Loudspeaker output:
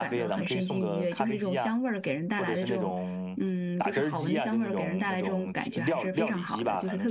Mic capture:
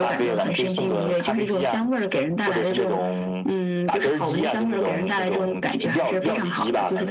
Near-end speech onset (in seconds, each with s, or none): none